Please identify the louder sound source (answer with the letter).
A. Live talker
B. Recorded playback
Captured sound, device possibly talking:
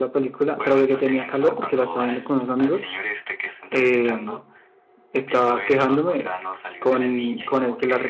A